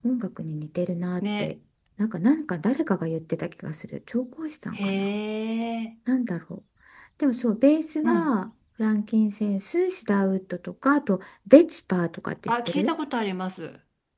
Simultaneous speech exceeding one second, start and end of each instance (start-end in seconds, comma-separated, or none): none